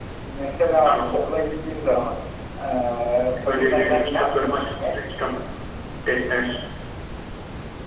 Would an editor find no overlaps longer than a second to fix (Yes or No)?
No